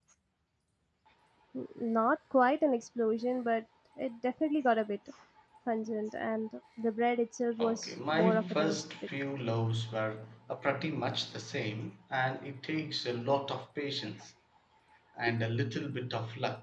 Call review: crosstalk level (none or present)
present